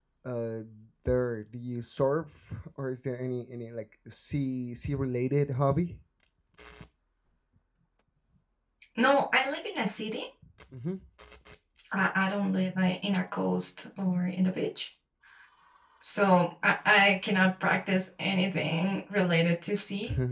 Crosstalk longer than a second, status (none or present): none